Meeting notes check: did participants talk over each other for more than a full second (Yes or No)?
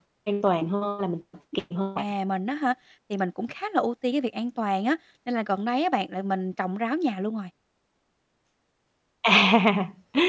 No